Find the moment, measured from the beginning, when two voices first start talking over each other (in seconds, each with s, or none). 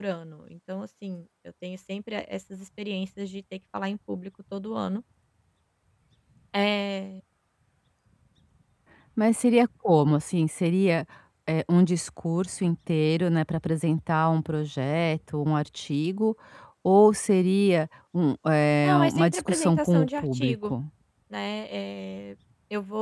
18.8 s